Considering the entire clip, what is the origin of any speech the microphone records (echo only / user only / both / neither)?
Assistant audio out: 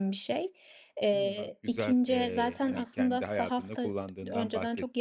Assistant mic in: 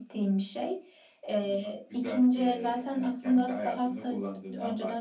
echo only